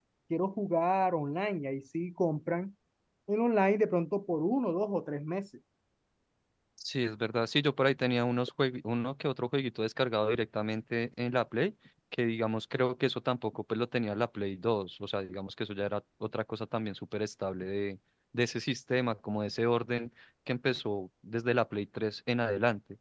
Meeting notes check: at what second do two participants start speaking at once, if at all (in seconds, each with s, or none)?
none